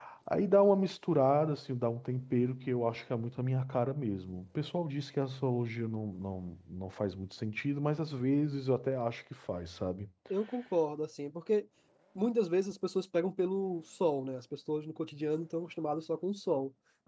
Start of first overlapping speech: none

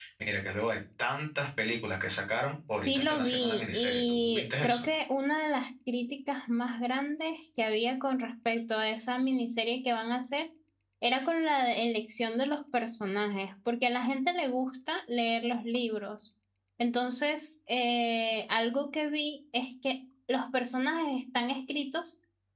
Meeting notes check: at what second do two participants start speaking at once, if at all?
2.8 s

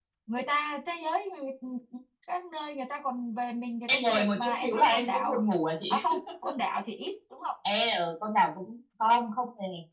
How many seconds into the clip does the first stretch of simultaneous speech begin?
3.9 s

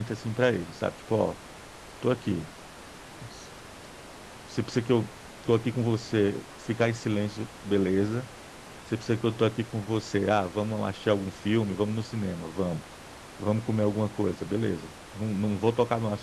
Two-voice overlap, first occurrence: none

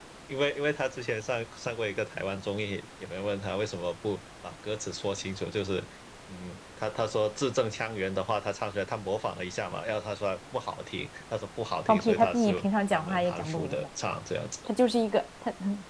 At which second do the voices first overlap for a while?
11.9 s

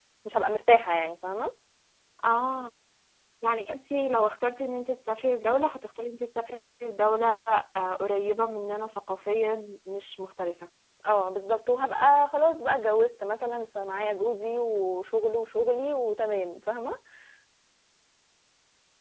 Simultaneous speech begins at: none

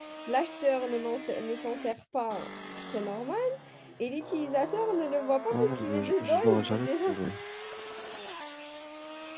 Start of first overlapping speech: 5.5 s

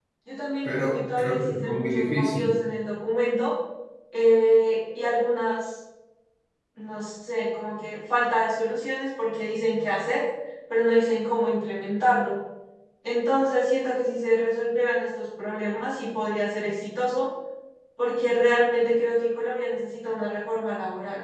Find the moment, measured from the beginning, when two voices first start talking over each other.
0.6 s

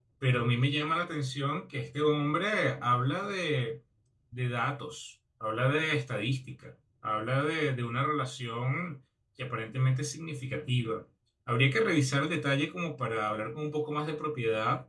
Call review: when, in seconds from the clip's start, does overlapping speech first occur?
none

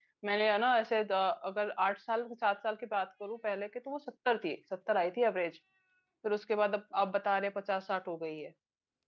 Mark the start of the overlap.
none

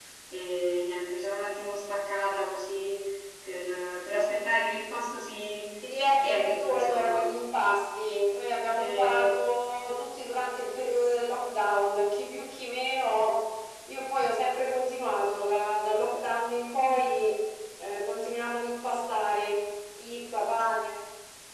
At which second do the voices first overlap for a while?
6.0 s

